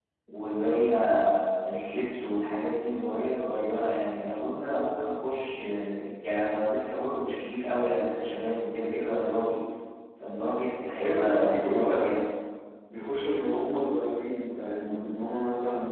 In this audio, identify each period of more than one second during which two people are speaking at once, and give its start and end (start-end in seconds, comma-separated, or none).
11.0-12.2